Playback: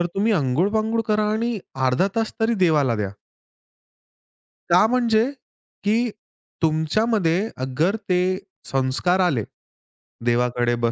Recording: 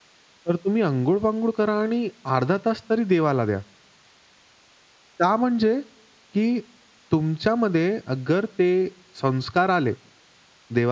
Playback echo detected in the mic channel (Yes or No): Yes